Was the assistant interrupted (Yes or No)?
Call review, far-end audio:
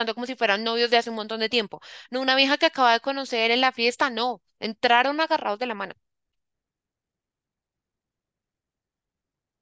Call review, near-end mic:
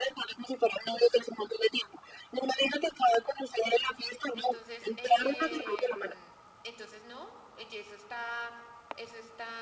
Yes